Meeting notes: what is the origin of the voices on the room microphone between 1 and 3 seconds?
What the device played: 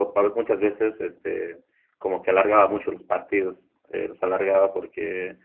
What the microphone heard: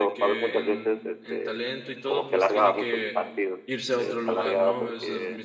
both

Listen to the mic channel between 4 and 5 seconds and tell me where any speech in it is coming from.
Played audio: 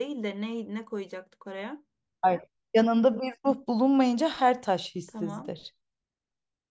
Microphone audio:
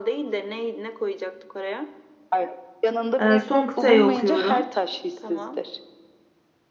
both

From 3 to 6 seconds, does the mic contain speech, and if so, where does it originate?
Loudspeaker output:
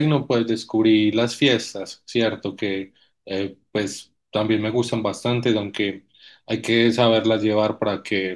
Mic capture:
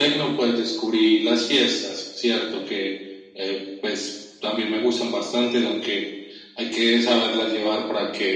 echo only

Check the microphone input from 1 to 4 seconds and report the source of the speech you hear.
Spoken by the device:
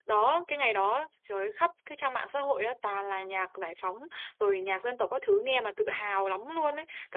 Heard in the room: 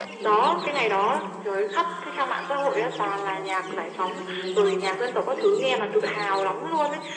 both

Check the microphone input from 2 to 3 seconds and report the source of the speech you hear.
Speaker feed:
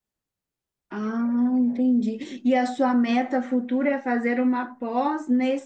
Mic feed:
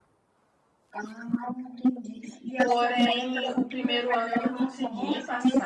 both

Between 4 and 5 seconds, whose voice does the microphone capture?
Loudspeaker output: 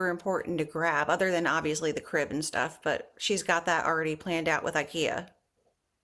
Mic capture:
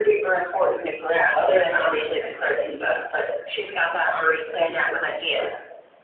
echo only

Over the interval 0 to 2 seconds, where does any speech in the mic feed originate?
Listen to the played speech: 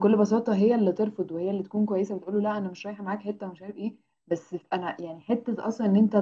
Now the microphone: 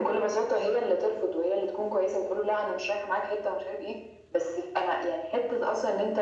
echo only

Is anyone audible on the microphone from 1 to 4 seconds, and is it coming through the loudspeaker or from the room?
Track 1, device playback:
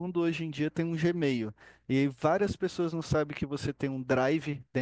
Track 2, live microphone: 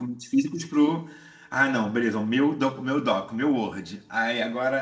user only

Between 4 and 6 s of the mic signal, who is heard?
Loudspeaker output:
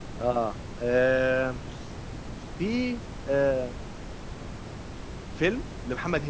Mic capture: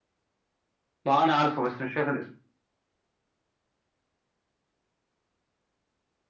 neither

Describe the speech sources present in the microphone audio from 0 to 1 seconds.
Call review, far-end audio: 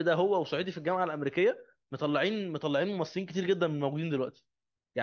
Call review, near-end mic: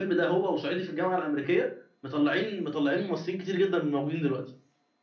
echo only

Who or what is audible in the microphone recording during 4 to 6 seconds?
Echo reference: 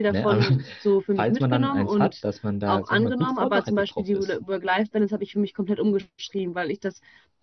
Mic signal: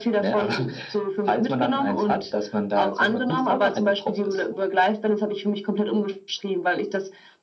echo only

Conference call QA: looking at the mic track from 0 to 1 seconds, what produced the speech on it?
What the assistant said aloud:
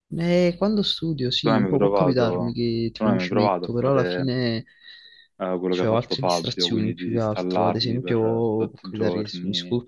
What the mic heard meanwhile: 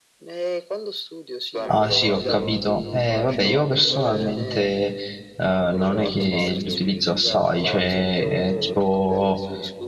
echo only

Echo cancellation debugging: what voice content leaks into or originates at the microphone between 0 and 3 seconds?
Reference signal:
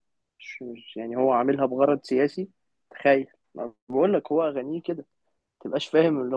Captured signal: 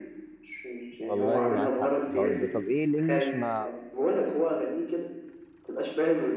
both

